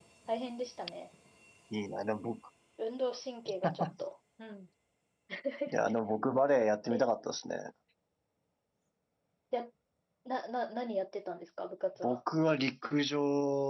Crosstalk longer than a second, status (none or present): none